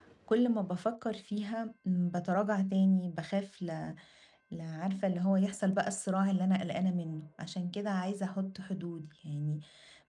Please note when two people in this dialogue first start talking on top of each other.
none

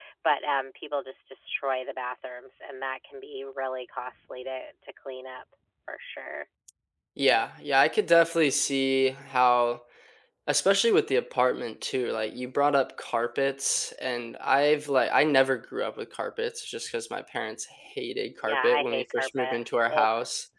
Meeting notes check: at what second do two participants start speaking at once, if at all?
18.4 s

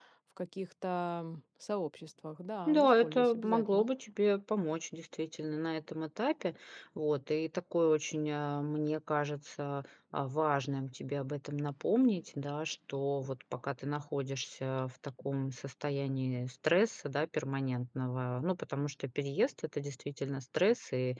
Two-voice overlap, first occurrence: 2.7 s

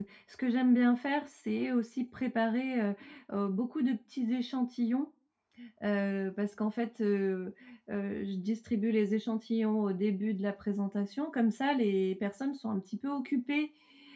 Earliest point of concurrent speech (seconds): none

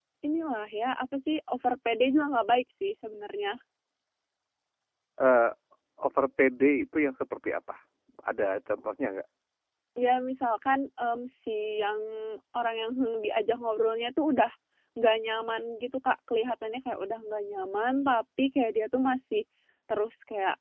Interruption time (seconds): none

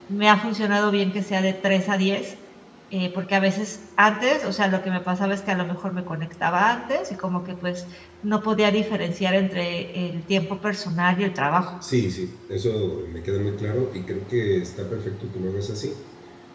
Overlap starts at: none

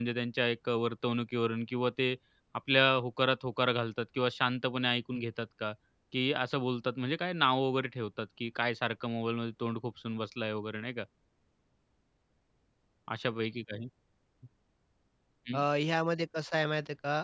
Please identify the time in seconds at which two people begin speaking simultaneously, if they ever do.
none

